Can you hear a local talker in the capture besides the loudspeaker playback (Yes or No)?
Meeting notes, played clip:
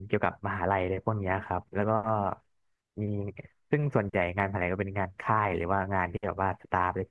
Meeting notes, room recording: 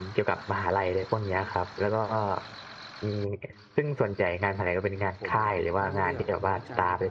Yes